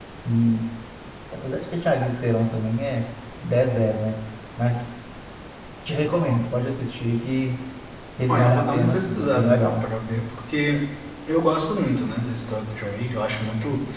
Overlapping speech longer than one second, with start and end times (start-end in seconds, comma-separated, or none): 8.3-9.8